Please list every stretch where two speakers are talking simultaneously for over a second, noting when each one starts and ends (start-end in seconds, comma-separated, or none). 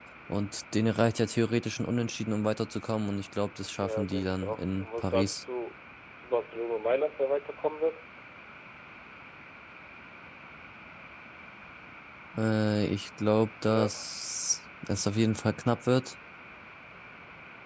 3.8-5.4